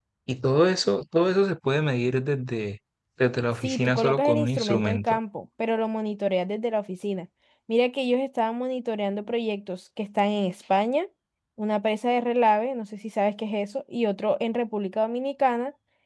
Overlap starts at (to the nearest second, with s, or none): 4 s